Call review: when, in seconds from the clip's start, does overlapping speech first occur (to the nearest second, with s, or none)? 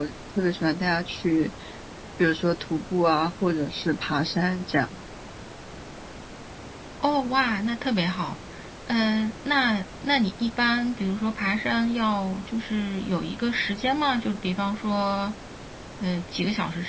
none